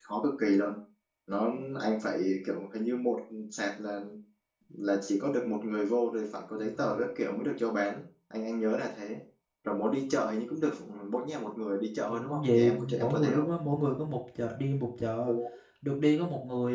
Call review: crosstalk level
present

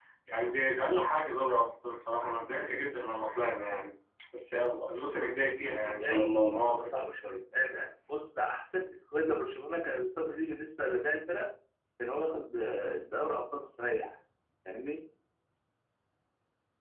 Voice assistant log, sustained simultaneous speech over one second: present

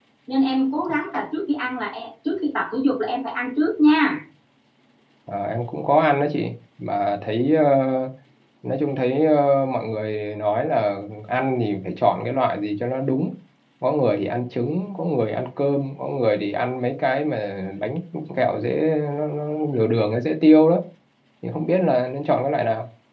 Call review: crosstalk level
none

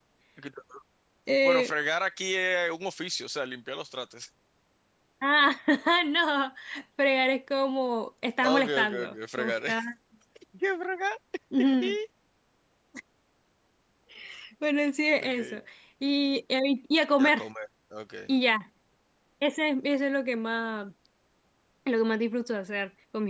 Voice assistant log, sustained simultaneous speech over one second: present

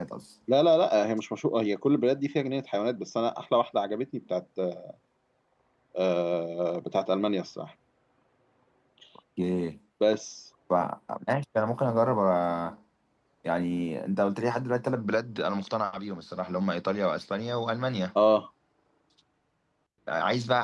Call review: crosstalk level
none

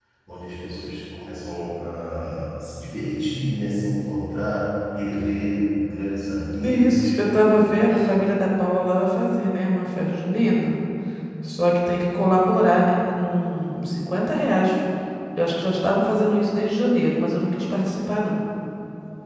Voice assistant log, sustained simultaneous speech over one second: none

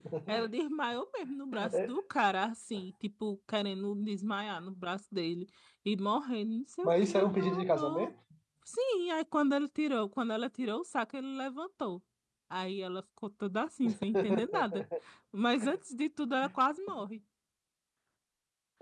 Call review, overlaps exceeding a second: present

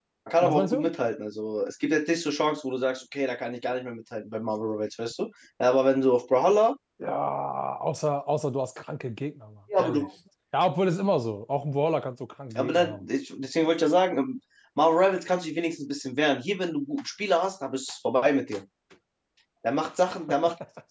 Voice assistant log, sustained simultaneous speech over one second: none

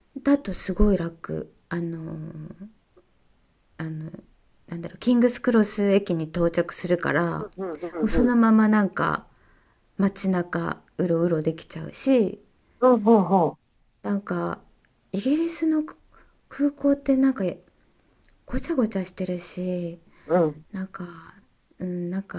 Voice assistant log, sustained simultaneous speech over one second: none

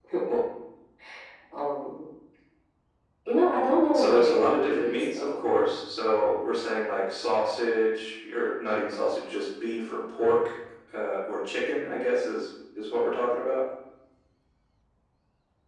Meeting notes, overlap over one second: present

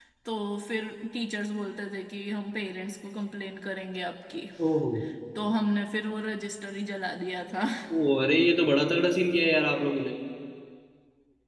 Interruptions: none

